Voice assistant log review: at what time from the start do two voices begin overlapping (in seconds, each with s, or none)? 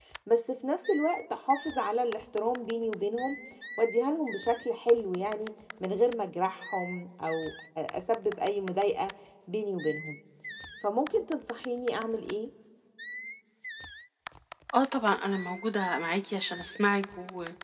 none